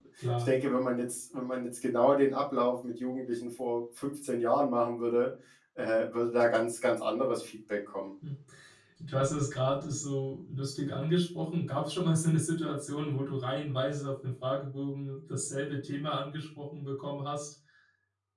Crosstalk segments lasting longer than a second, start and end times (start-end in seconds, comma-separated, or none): none